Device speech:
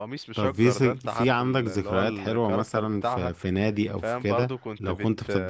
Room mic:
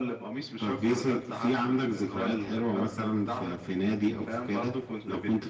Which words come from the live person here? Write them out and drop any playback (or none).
none